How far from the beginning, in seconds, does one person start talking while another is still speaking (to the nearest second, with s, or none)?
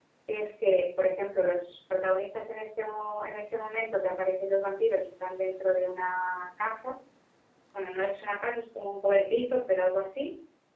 none